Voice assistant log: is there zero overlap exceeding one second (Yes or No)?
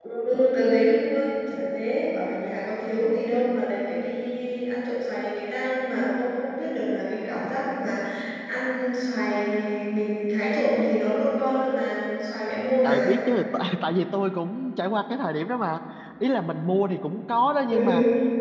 Yes